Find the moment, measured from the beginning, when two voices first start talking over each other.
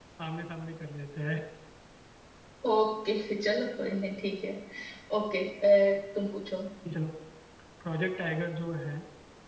none

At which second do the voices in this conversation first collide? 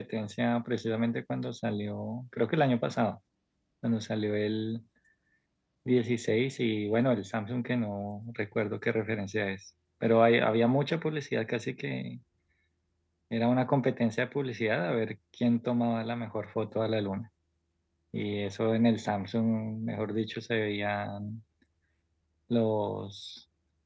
none

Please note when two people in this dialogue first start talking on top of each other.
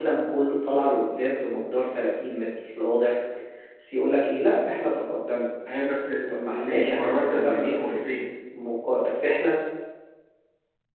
6.3 s

